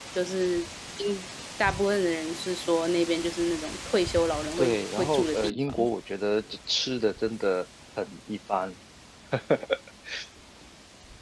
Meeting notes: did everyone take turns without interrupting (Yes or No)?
No